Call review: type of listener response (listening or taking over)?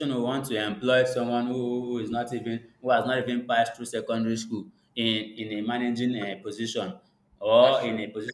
listening